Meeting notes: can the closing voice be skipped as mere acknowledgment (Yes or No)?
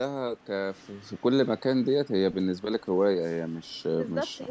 No